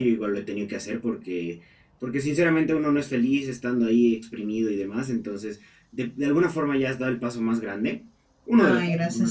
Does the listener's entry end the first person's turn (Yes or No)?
No